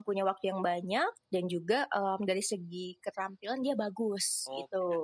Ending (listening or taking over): taking over